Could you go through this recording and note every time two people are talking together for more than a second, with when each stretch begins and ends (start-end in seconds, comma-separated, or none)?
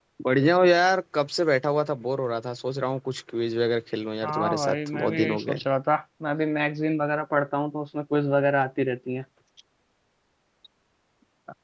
4.2-5.6